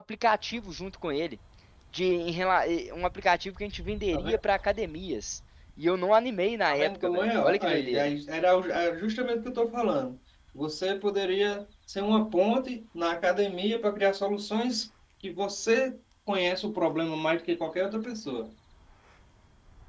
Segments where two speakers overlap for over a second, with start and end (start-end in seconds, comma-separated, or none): 6.7-8.1